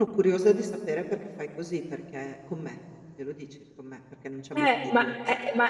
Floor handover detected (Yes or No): Yes